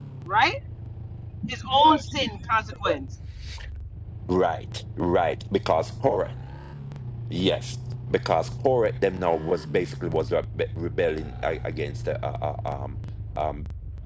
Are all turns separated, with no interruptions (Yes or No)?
Yes